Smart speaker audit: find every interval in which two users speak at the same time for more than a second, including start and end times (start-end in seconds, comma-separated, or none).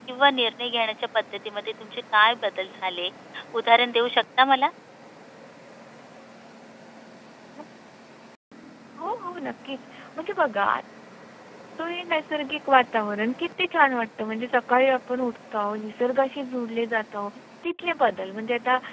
none